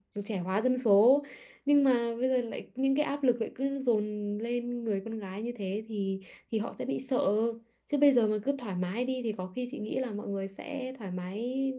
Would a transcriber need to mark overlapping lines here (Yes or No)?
No